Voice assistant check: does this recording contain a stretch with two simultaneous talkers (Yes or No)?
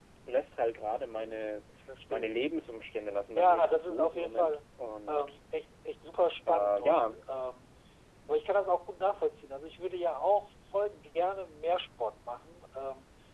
Yes